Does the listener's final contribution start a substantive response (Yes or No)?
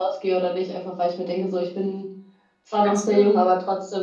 No